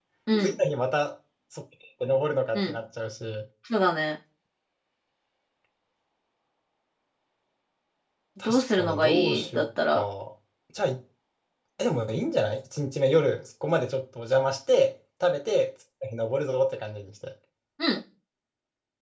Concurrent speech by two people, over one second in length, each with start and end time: 8.4-10.0

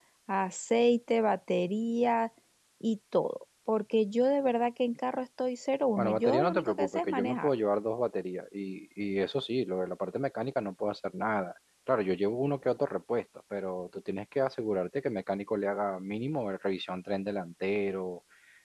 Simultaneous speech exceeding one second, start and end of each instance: 6.0-7.5

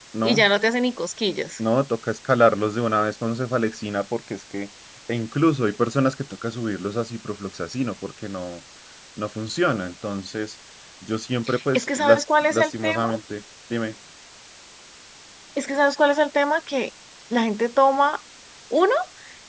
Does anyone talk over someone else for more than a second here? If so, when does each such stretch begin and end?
11.7-13.0

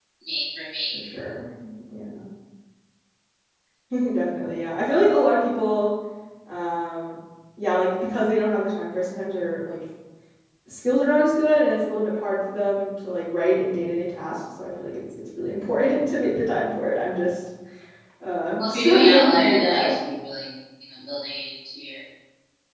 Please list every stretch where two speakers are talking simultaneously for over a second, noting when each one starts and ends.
18.6-19.9

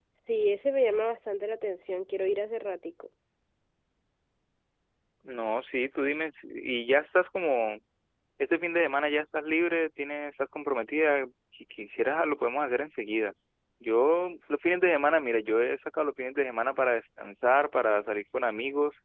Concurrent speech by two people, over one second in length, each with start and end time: none

